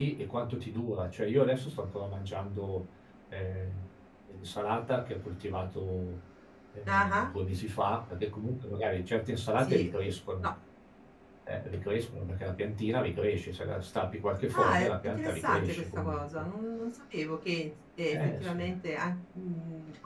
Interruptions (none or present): present